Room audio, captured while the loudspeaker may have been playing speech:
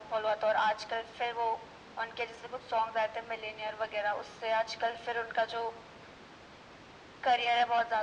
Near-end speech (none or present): none